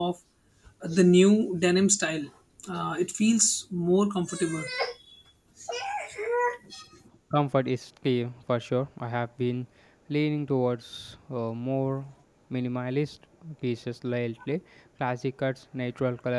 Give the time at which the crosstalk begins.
none

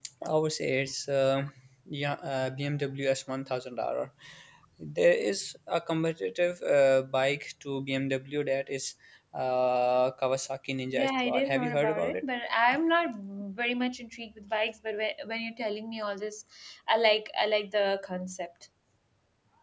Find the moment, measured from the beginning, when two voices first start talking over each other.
10.9 s

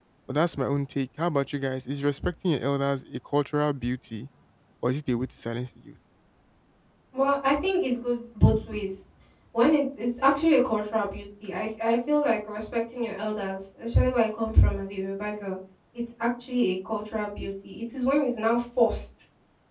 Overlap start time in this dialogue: none

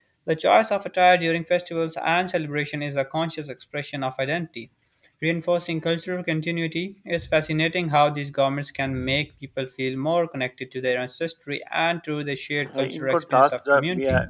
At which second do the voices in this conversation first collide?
12.6 s

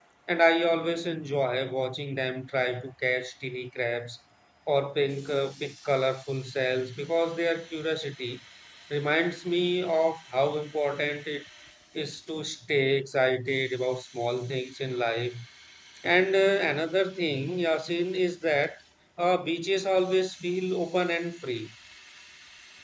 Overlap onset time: none

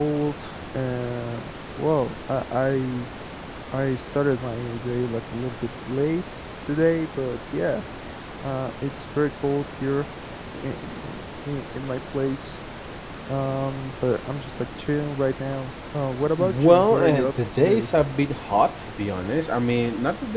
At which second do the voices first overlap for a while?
16.4 s

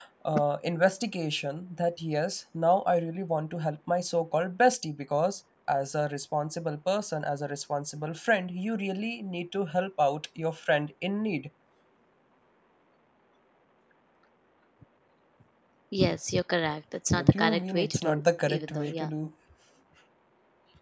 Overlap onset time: 17.1 s

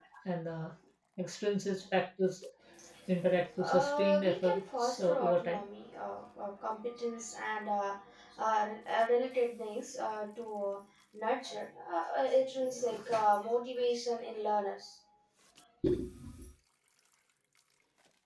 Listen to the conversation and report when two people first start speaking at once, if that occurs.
3.6 s

